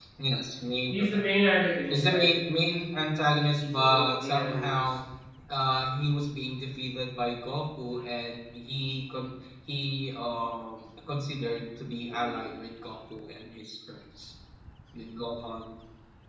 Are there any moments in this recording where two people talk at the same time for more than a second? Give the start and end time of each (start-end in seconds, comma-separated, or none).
3.6-4.8